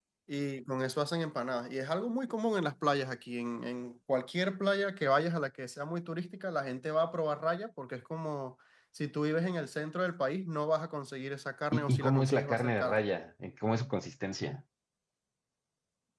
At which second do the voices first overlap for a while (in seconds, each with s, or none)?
11.7 s